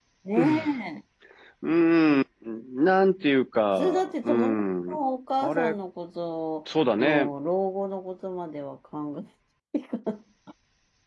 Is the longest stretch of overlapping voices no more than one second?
No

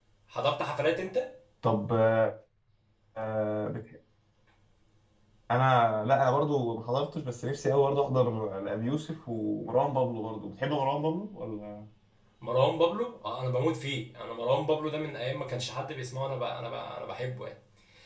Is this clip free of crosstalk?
Yes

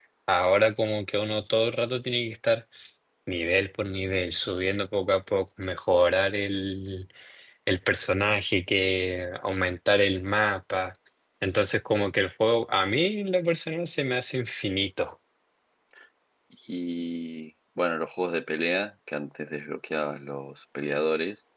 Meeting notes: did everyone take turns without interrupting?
Yes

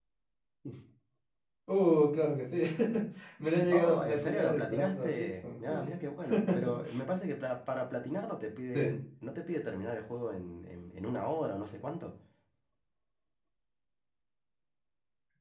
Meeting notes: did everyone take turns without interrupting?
No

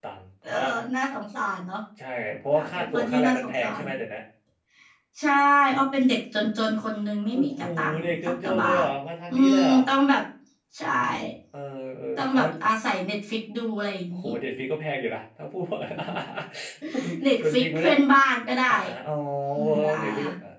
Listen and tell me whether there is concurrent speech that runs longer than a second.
Yes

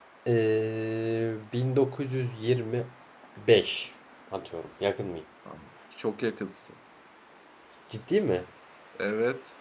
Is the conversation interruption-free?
Yes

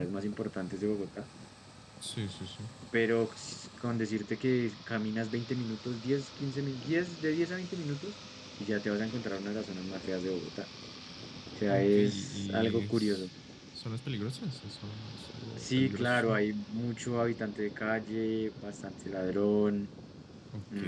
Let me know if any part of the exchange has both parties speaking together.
Yes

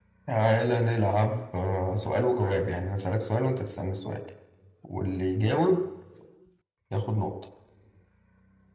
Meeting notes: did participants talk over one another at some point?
No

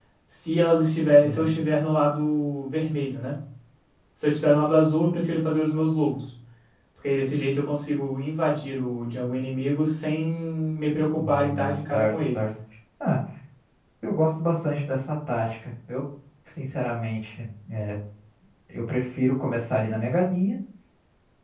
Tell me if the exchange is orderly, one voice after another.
No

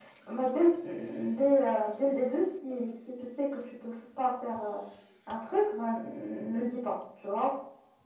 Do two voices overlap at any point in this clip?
No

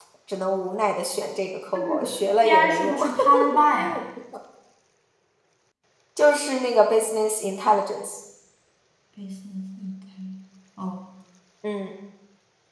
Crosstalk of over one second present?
Yes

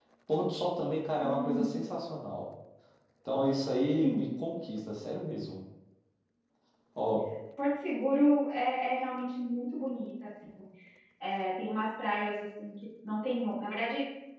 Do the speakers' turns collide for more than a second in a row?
No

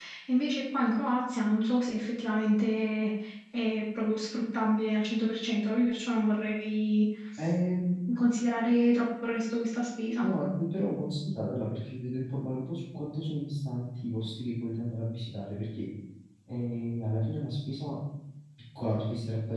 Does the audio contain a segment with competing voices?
No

